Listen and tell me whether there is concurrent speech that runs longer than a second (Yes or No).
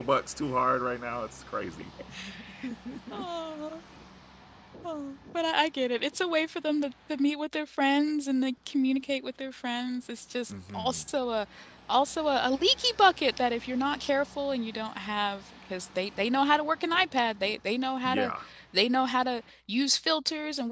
No